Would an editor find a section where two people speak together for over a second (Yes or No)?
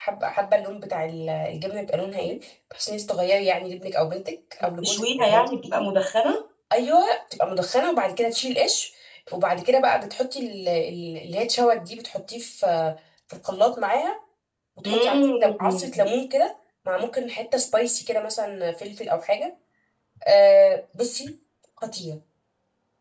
Yes